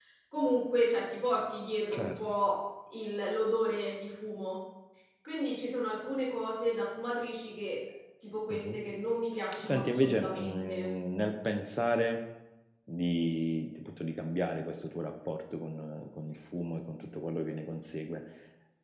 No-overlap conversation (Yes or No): No